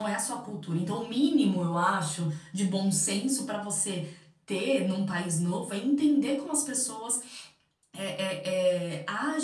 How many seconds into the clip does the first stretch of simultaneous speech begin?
none

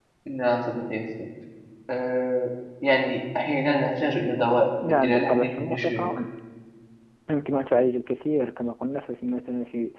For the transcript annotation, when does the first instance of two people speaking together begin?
4.8 s

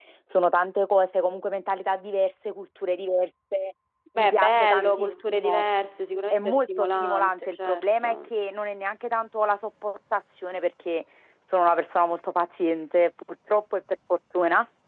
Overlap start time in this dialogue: 4.2 s

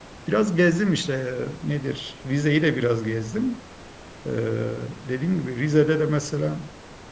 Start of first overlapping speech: none

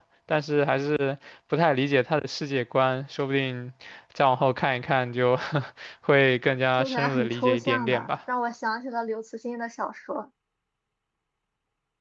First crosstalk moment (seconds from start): 6.8 s

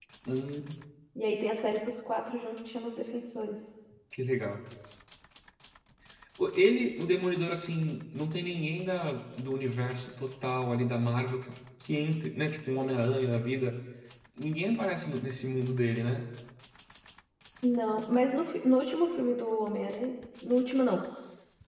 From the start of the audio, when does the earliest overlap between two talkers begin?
none

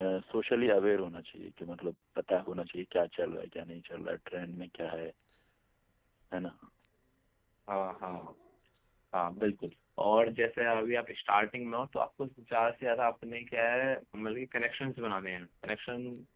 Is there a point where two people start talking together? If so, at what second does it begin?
none

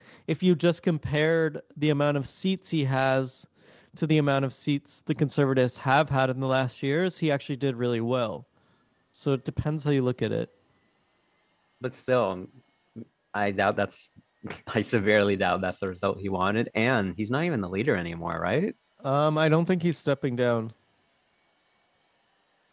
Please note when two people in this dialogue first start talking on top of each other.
none

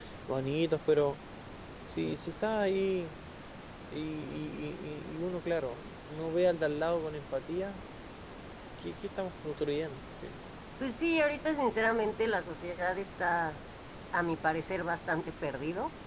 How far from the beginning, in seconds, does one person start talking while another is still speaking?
none

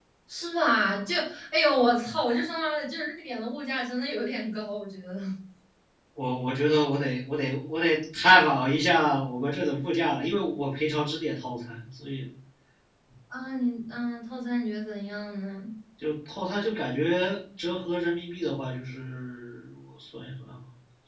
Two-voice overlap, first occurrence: none

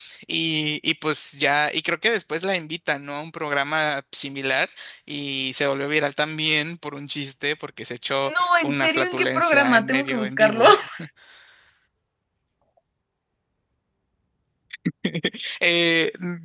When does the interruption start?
8.2 s

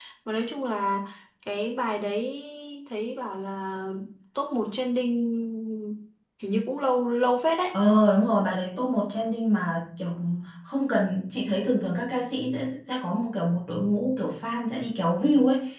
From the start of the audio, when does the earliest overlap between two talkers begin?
none

